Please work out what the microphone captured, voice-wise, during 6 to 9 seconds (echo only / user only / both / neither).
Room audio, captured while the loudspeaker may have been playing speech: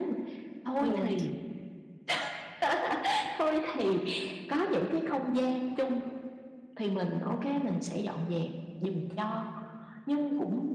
echo only